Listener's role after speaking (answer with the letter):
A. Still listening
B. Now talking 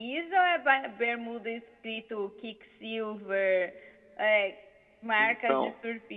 B